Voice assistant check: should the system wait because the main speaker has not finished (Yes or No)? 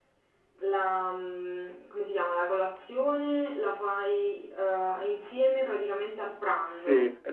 No